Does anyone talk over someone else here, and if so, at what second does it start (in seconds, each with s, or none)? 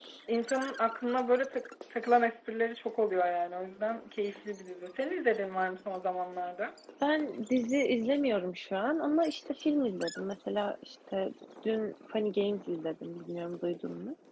none